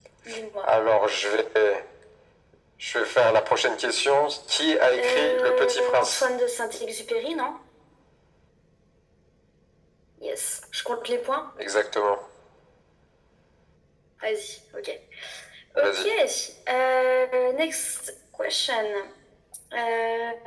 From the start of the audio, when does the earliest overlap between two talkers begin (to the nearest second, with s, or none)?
5 s